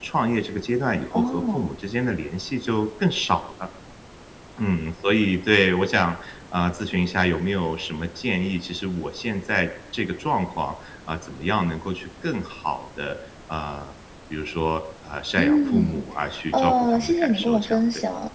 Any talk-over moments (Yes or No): Yes